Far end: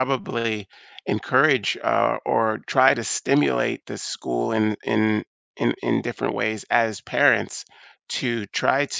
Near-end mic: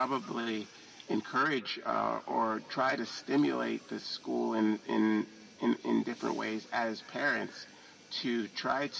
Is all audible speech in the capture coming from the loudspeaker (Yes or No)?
Yes